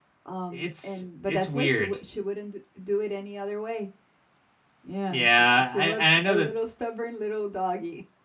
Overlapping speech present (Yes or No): Yes